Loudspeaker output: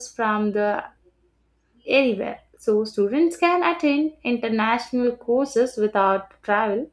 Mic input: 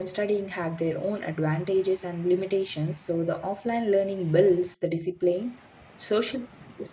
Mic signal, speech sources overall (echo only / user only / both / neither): user only